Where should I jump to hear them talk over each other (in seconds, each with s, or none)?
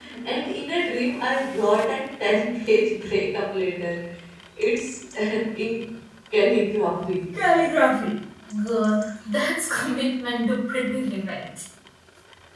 none